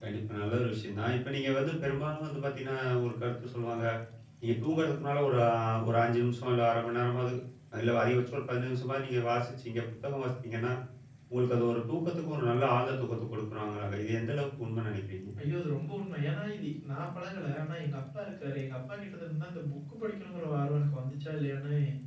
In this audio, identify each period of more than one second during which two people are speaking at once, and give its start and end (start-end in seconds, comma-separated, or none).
none